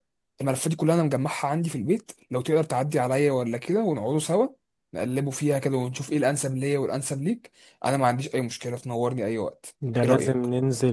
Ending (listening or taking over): taking over